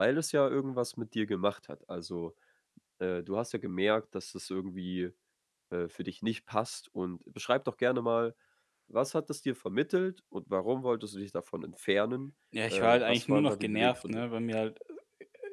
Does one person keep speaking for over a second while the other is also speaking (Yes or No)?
Yes